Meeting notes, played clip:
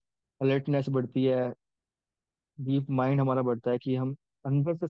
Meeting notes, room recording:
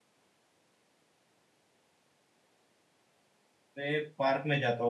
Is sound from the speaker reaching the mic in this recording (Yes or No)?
No